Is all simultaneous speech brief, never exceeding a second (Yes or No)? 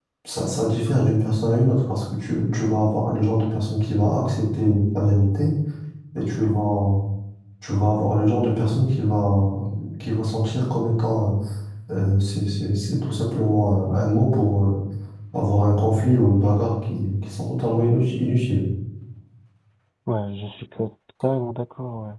Yes